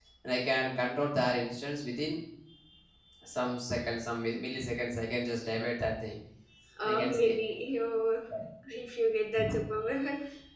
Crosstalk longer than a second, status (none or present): none